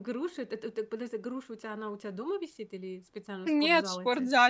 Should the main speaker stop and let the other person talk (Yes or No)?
Yes